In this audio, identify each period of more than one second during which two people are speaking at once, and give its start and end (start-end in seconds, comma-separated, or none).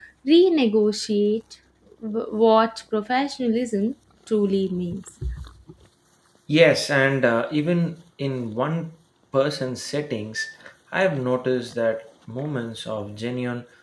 none